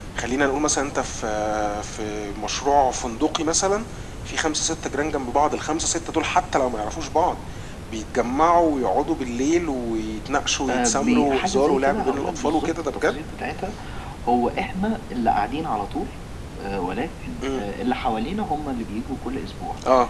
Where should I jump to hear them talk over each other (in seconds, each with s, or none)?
10.7 s